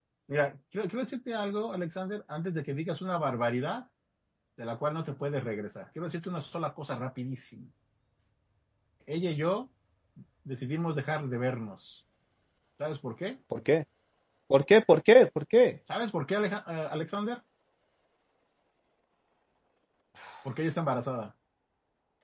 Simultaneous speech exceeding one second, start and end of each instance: none

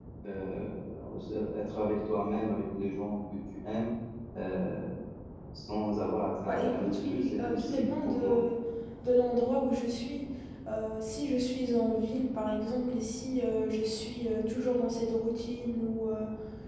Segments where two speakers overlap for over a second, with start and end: 6.5-8.4

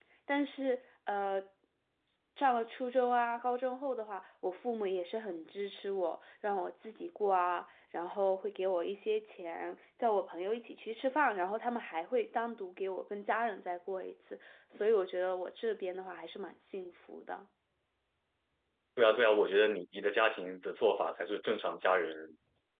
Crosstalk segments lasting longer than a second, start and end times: none

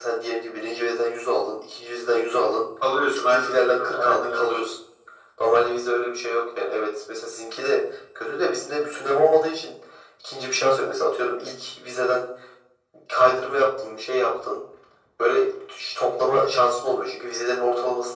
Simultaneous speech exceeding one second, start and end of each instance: 3.3-4.6

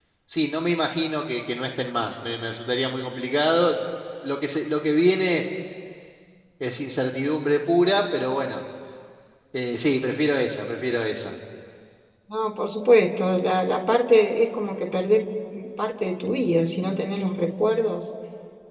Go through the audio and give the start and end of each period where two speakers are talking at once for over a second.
none

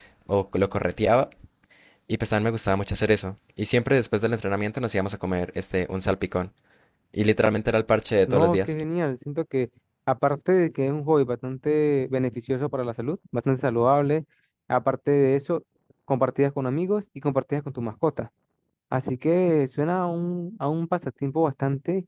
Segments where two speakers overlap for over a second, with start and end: none

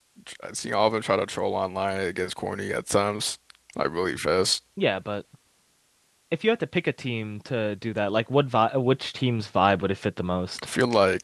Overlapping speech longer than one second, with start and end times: none

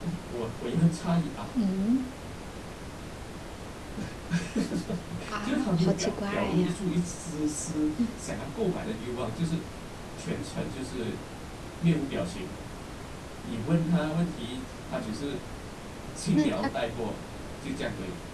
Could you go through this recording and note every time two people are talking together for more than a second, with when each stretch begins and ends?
5.4-6.8

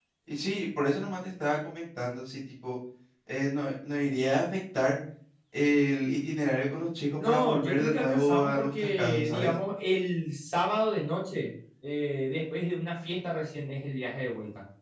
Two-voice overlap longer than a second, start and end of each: 7.2-9.5

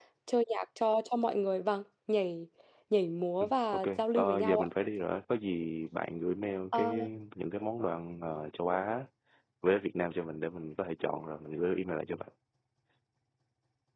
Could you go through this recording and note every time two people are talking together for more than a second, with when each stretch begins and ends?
3.4-4.7

